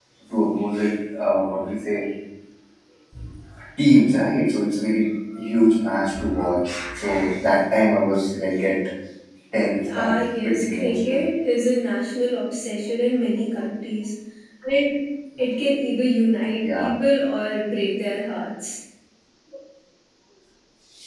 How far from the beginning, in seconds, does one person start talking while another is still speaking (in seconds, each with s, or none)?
10.0 s